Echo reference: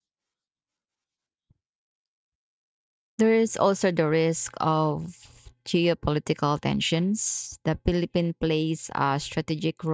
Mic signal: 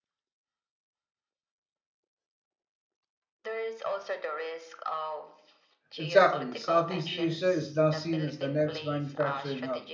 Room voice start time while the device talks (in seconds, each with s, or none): 6.0 s